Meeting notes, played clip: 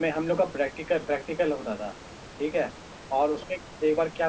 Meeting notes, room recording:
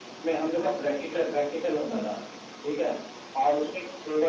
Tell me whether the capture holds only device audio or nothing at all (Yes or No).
Yes